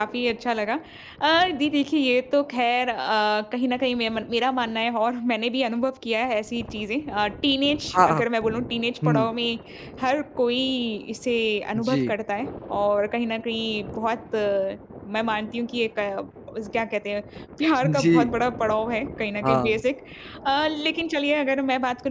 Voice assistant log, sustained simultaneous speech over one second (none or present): none